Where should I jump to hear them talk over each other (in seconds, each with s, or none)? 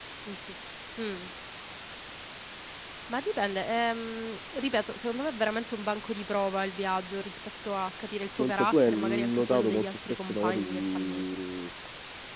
8.4 s